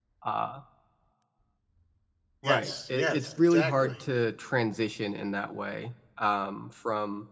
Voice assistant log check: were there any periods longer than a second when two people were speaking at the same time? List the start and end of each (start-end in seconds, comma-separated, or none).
2.4-4.0